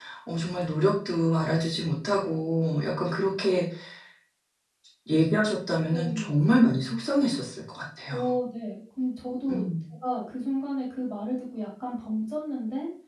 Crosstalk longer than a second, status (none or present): none